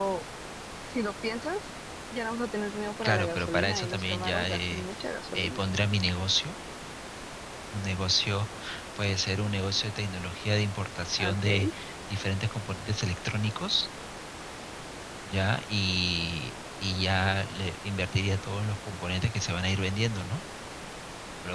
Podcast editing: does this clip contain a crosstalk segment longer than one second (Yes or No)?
Yes